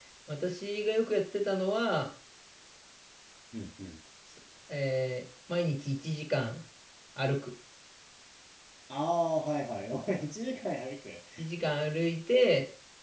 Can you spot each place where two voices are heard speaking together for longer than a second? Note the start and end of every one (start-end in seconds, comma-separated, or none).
none